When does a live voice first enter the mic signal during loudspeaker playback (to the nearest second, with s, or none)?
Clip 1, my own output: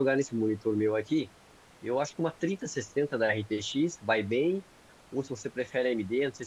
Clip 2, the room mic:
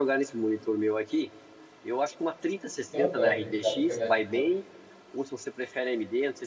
3 s